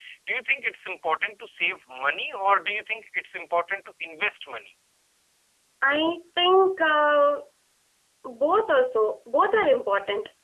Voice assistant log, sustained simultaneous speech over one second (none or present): none